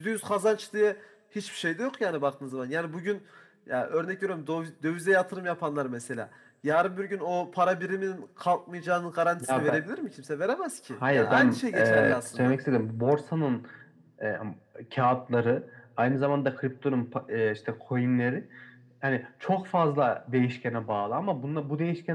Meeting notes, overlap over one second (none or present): present